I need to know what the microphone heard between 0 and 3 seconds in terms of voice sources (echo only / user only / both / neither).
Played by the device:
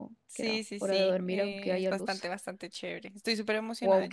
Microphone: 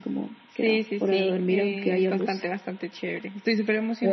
echo only